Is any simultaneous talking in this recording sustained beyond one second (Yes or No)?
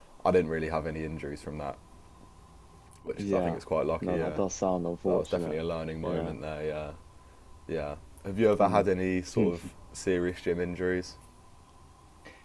No